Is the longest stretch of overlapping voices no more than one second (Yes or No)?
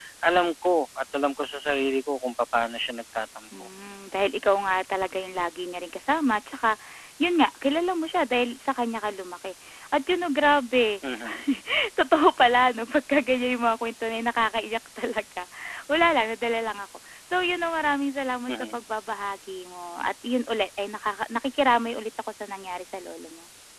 Yes